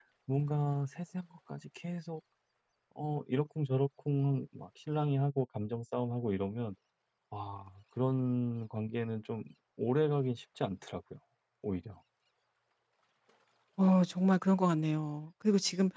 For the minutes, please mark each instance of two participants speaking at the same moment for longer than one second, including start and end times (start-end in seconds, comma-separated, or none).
none